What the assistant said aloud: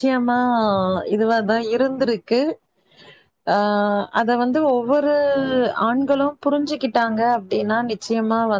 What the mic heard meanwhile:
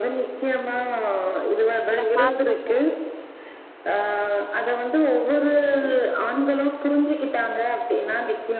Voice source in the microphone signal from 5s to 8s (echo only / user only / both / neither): echo only